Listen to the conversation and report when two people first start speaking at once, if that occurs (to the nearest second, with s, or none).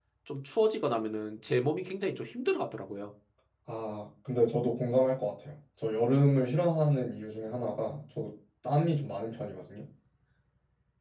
none